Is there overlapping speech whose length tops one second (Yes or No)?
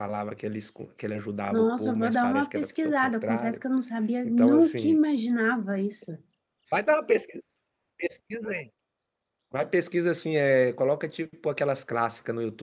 Yes